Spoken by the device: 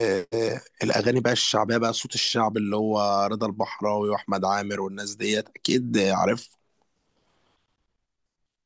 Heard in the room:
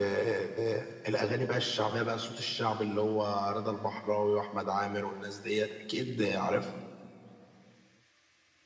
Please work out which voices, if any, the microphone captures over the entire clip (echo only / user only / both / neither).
echo only